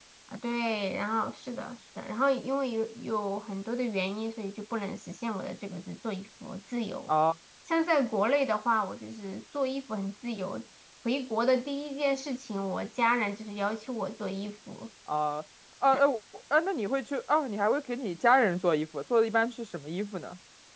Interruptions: none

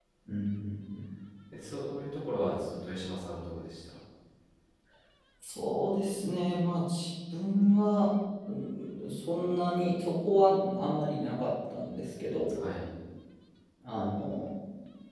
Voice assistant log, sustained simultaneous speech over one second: none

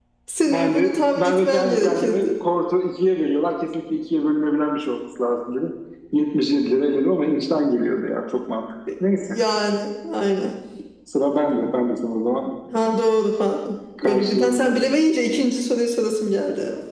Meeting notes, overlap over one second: present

